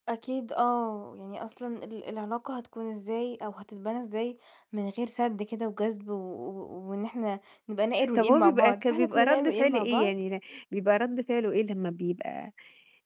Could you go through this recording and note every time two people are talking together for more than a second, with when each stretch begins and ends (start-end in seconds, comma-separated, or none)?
8.2-10.1